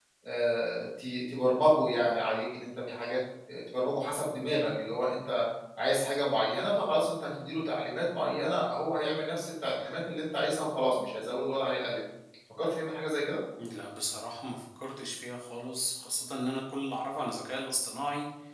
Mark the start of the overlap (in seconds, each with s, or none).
none